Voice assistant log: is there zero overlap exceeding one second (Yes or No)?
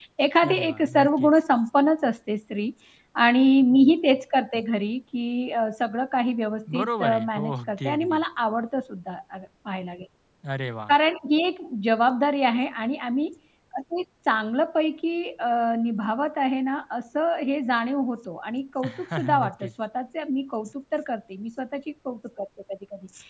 No